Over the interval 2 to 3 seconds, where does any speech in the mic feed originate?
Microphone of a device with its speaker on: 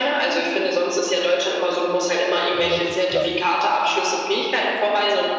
both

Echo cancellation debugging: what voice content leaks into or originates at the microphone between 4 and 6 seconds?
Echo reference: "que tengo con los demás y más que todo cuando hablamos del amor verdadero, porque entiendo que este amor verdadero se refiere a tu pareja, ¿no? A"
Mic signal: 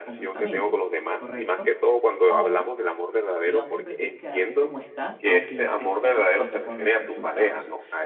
both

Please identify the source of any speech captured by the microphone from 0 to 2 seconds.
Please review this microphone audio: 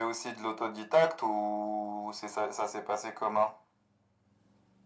echo only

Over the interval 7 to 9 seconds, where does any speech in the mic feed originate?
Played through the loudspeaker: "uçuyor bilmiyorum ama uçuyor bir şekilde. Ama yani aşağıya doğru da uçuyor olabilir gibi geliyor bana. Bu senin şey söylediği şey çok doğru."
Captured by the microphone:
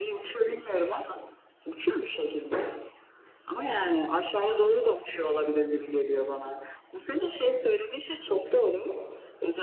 echo only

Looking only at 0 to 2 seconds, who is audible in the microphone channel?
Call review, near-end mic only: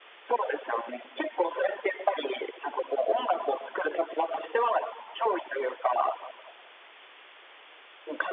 echo only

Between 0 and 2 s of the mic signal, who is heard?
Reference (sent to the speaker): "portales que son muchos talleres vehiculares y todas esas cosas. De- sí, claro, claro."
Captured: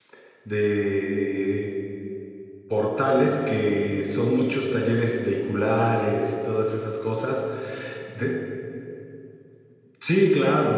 echo only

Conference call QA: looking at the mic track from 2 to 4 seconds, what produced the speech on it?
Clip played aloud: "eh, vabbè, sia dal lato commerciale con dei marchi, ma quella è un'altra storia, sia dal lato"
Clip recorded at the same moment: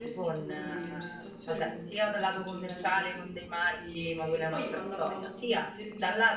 both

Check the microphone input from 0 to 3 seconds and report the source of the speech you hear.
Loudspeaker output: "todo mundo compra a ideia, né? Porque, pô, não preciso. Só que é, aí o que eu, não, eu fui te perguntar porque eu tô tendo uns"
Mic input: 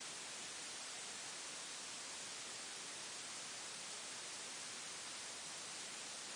neither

